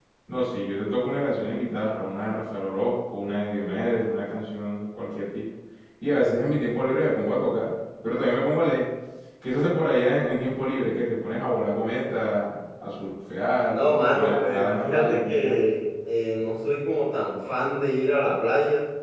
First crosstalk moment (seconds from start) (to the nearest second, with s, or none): 14 s